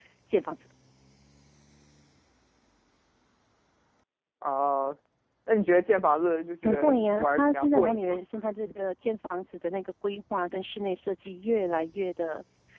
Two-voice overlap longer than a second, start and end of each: 6.6-8.2

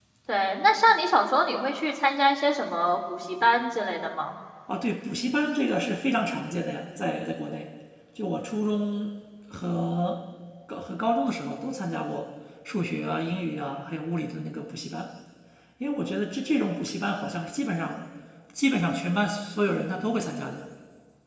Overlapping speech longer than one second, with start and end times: none

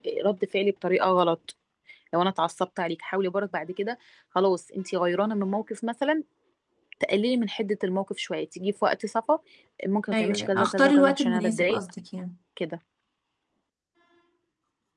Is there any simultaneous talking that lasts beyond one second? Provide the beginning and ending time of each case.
10.1-11.8

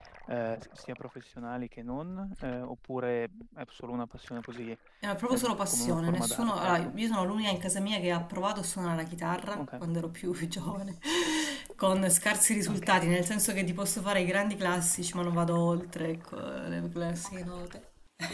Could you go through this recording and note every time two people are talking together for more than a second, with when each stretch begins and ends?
5.3-6.9

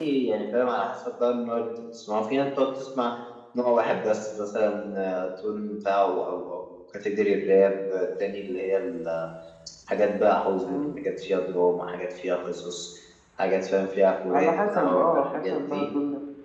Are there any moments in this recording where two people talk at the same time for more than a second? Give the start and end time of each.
14.3-15.9

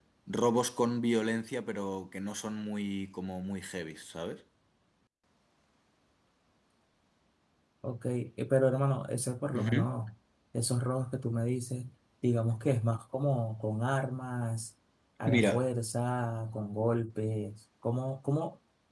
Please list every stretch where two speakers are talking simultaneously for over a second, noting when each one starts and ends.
none

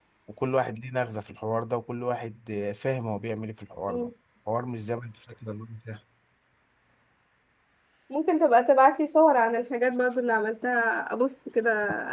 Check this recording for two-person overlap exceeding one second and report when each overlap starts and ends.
none

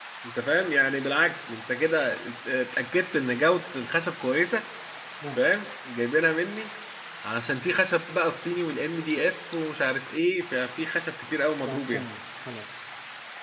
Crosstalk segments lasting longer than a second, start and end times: none

